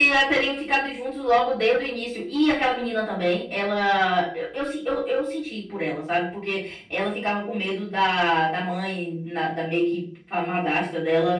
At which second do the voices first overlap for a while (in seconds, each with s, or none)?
none